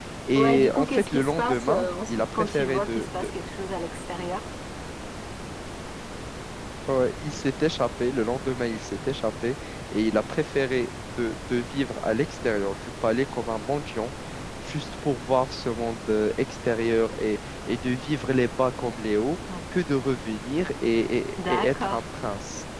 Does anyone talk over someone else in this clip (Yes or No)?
Yes